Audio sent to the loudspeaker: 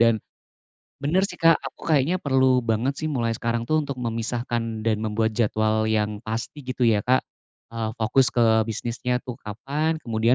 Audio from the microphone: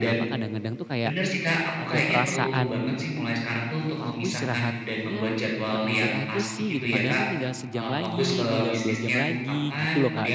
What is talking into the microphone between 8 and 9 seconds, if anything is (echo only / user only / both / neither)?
both